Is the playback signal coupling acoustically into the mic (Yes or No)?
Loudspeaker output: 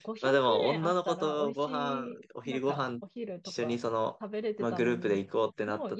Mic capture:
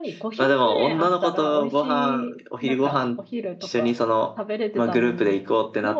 Yes